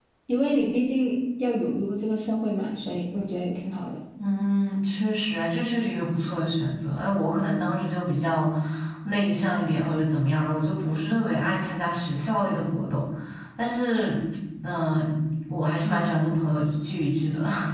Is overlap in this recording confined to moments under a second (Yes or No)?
Yes